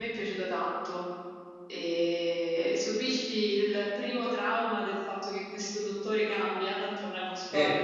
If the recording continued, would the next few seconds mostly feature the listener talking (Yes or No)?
Yes